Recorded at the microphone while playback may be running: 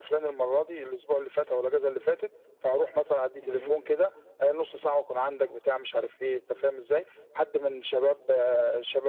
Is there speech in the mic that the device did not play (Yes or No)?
Yes